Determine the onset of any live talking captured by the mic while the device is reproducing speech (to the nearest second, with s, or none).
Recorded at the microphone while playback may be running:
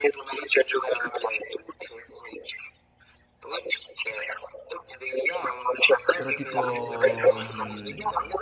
6 s